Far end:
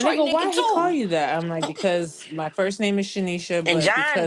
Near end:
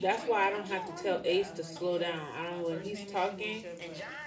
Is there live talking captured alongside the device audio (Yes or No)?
Yes